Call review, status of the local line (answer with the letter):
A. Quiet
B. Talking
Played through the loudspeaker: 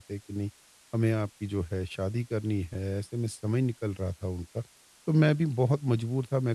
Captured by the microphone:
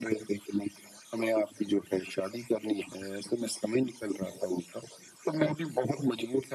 A